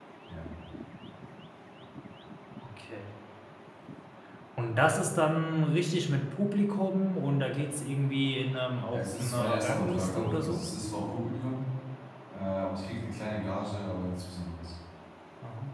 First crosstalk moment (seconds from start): 8.9 s

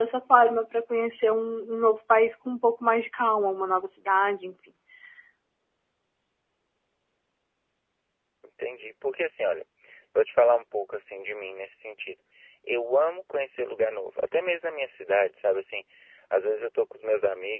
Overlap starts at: none

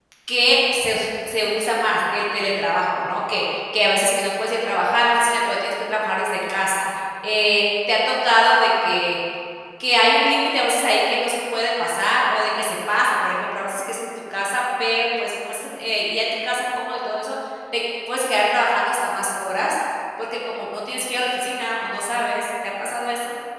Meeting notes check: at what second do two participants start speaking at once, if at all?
none

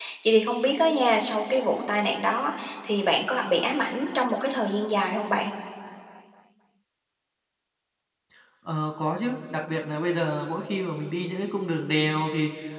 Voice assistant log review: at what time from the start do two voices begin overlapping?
none

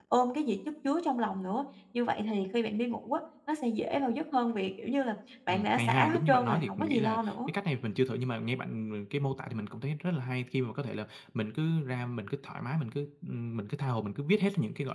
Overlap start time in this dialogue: 5.5 s

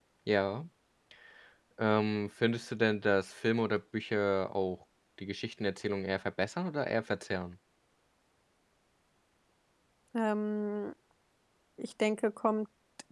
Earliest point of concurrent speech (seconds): none

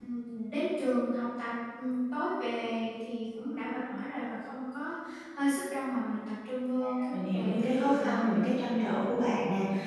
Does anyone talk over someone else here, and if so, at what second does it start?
6.8 s

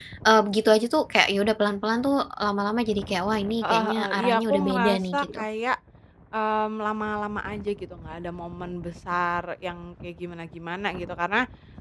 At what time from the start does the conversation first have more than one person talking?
3.6 s

